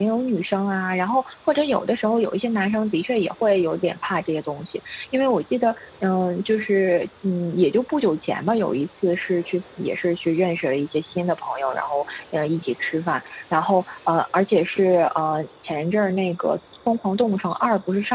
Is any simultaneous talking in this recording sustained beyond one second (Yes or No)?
No